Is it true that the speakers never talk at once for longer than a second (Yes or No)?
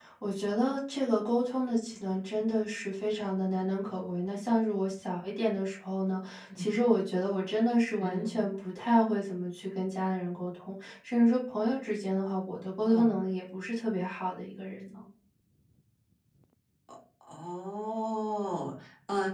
Yes